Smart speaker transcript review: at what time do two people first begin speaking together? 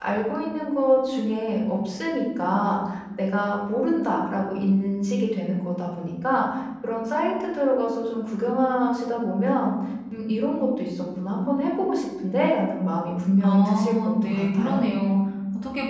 13.4 s

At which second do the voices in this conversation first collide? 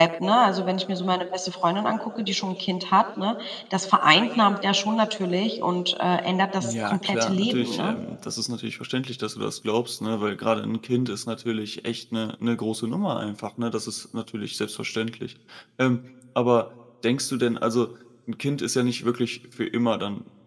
6.6 s

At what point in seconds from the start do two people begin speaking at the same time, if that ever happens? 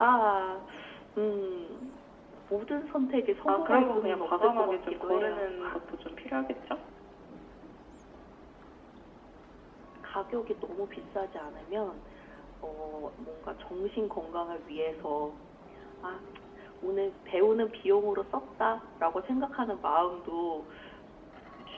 3.5 s

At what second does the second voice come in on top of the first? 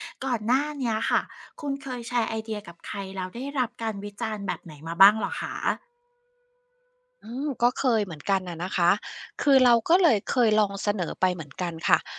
none

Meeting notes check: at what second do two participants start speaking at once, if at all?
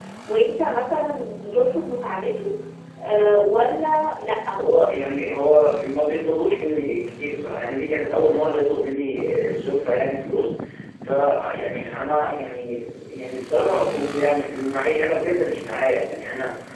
none

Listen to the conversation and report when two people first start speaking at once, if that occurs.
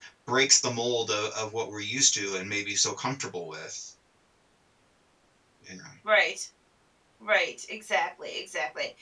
none

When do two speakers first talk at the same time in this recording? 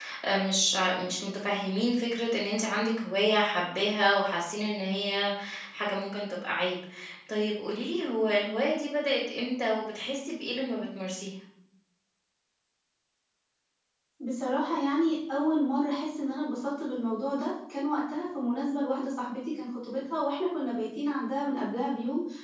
none

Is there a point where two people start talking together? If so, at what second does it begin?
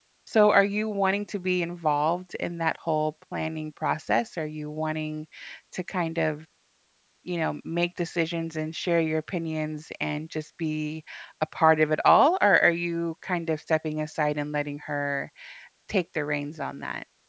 none

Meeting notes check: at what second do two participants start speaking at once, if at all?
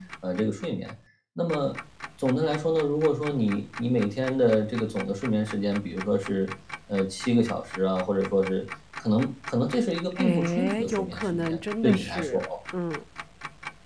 10.2 s

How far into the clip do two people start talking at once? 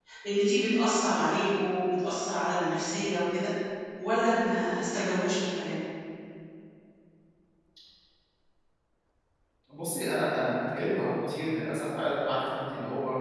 none

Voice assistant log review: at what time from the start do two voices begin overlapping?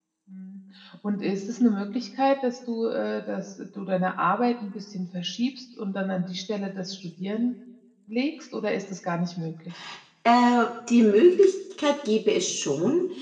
none

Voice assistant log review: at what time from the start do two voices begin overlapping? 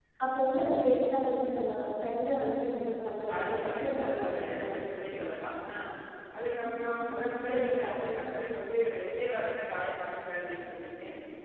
3.4 s

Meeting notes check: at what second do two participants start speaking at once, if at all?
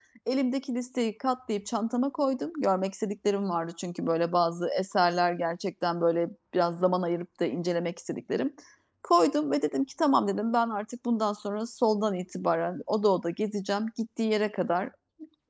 none

